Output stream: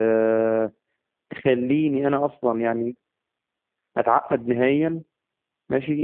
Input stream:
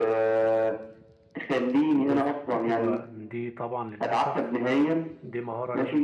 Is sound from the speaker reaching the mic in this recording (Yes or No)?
Yes